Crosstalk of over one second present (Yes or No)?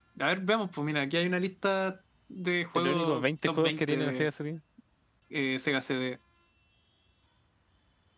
Yes